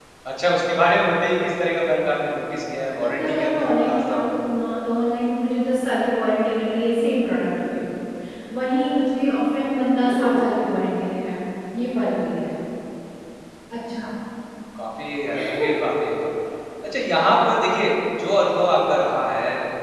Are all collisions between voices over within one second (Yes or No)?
No